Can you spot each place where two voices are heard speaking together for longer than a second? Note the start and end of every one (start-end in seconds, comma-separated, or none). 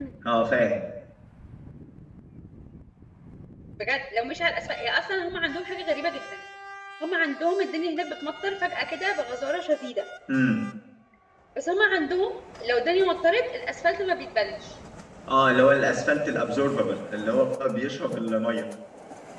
none